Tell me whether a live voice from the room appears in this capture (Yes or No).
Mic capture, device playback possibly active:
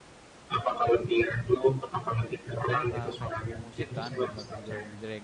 Yes